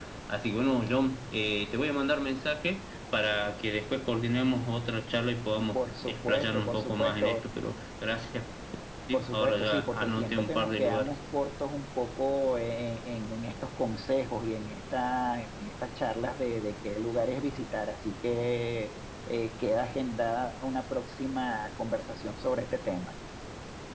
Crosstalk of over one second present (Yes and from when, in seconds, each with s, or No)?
Yes, from 5.7 s